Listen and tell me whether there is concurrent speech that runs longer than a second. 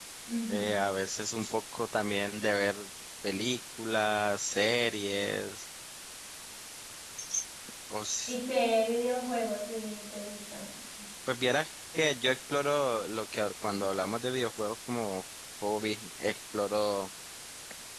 No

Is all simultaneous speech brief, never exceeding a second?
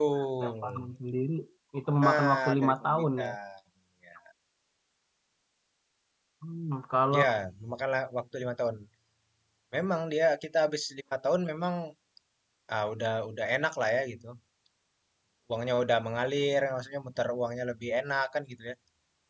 No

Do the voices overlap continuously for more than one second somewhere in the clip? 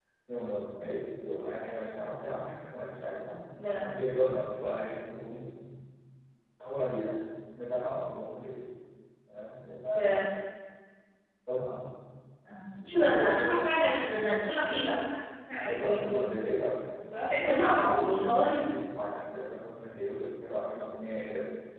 Yes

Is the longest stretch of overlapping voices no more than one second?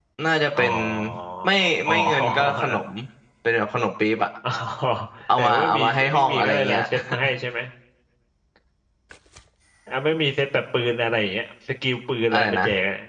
No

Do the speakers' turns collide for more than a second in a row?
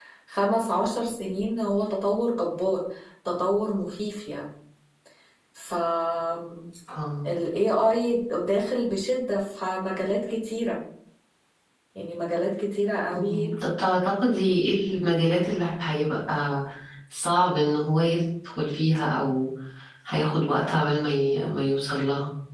No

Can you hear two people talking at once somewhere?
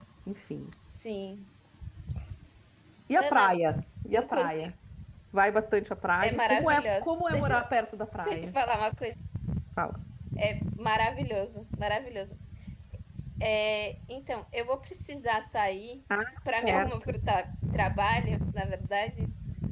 Yes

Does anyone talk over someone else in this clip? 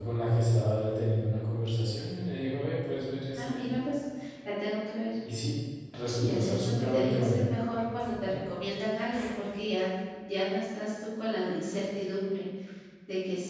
Yes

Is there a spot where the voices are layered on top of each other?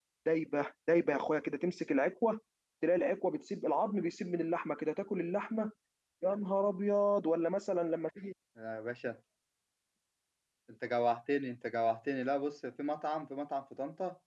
No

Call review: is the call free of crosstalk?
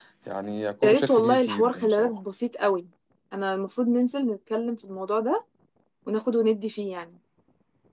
No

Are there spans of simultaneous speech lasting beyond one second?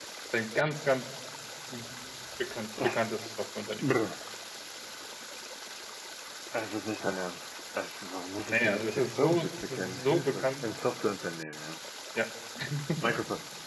Yes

